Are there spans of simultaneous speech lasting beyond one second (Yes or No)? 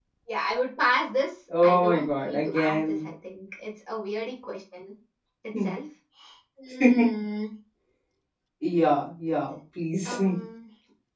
Yes